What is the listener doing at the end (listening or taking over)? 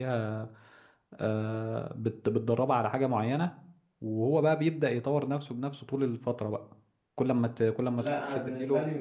taking over